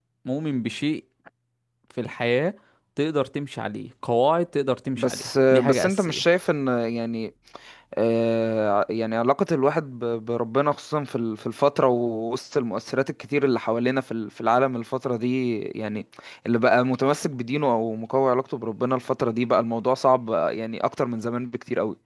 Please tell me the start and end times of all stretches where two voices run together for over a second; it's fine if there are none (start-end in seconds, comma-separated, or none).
5.0-6.2